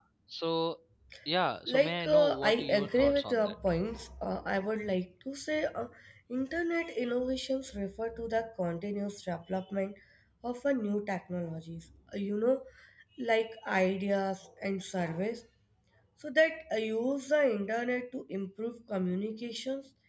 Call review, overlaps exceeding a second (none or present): present